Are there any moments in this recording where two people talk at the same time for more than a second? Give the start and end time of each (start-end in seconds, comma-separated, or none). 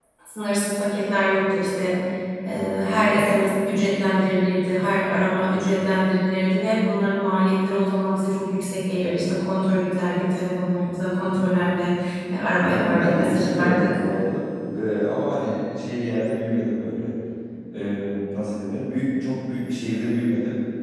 12.6-14.0